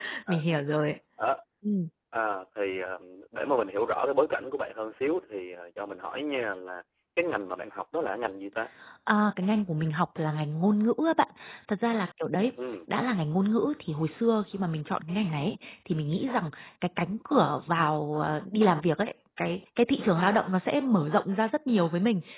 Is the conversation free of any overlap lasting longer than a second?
Yes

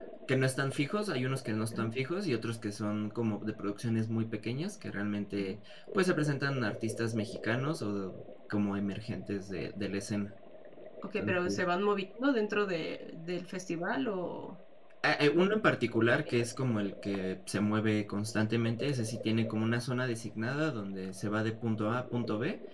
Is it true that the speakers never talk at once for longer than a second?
Yes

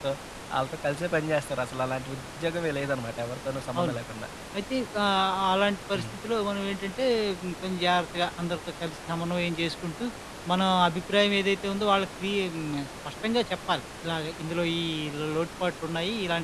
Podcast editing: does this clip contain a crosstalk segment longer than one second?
No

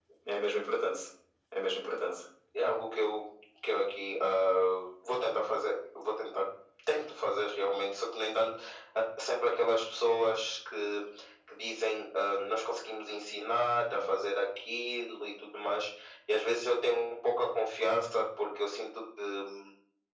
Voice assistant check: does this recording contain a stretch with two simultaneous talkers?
No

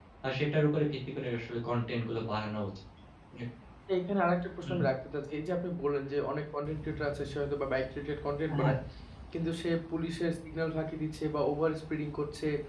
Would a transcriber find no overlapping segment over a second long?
Yes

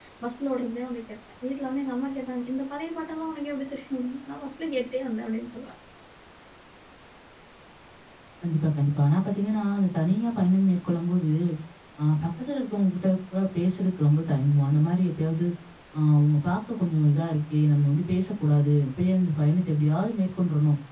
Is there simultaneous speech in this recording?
No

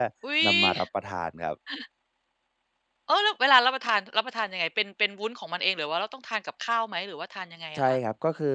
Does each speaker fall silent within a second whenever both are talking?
Yes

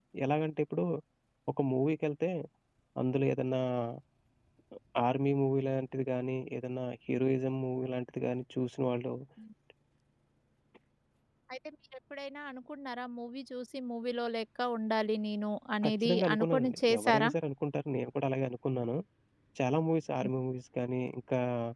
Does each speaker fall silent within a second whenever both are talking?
No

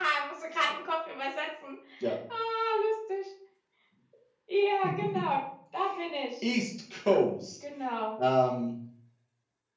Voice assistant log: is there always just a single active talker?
Yes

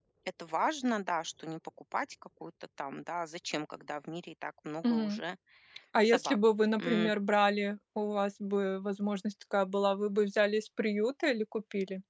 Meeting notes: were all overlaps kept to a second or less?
Yes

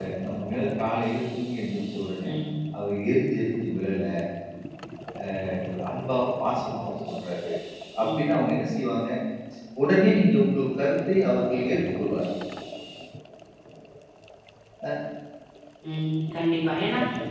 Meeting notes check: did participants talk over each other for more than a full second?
No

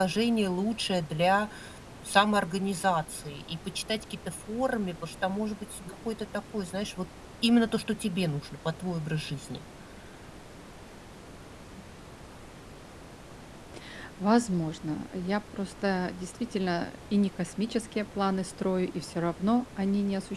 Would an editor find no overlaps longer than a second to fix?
Yes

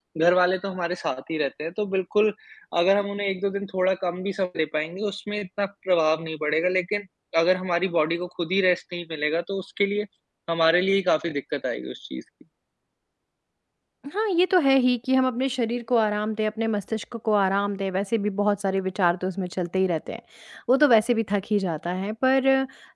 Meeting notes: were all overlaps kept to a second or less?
Yes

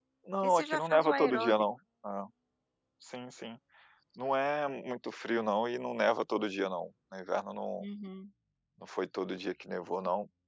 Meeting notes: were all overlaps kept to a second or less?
No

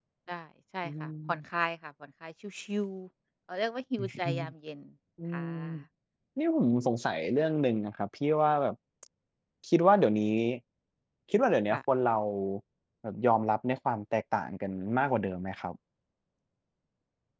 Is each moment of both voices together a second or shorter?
Yes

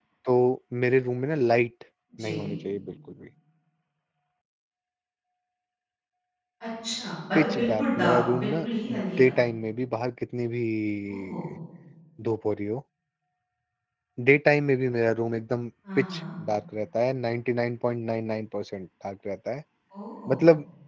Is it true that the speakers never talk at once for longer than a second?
No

